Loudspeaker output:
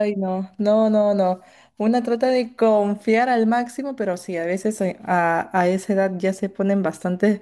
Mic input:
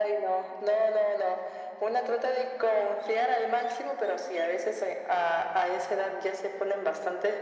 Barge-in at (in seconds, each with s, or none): none